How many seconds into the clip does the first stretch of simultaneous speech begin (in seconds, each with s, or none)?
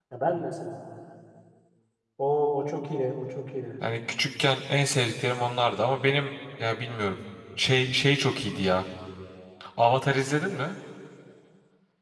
none